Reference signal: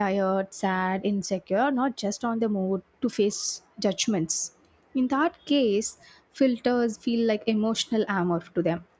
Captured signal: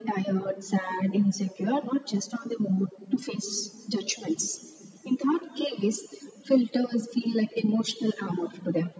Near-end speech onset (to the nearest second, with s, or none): none